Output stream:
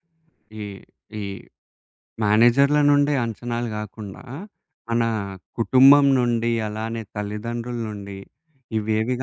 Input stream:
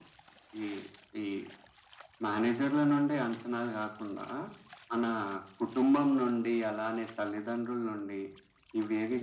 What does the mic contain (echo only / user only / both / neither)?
echo only